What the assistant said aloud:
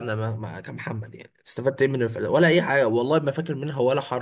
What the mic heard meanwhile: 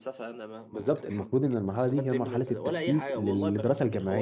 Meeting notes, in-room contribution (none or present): present